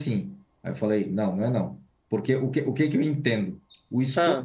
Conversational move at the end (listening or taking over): listening